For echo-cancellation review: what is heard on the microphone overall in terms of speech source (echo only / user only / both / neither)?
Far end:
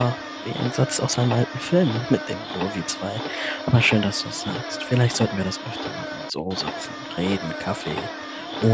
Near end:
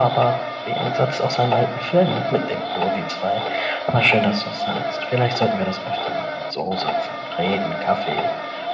echo only